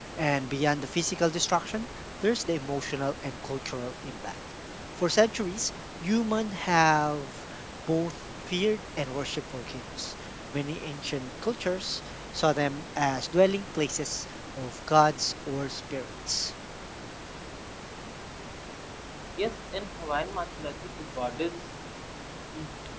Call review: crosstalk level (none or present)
none